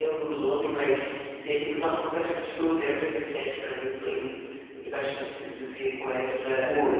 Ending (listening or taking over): taking over